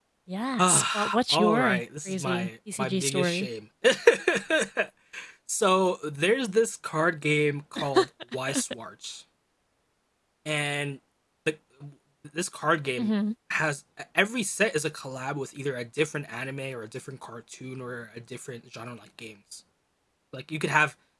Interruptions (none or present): present